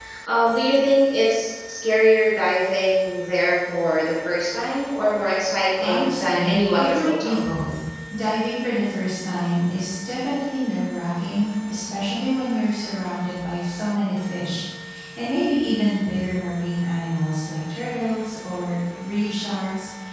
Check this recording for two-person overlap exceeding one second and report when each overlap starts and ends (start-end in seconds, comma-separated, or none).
5.8-7.4